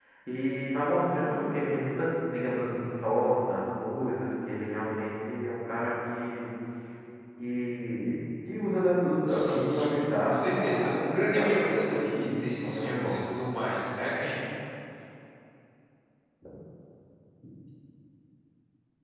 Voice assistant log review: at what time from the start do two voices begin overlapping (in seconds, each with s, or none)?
9.3 s